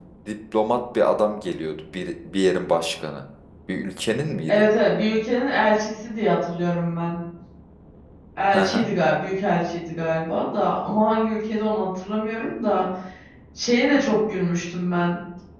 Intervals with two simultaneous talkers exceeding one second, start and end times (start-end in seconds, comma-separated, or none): none